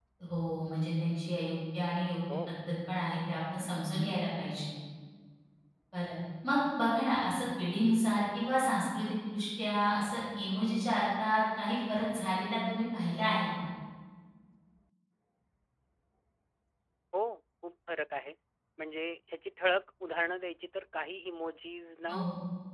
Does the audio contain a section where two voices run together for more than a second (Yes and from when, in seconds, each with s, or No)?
No